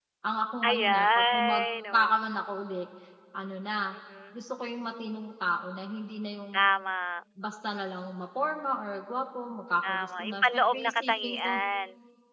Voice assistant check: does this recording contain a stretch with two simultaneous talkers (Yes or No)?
Yes